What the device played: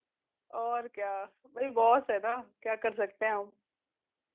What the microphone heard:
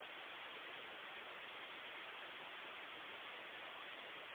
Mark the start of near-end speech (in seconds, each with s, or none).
none